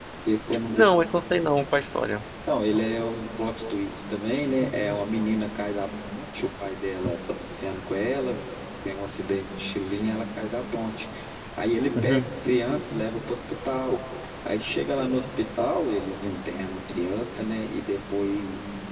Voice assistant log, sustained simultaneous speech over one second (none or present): none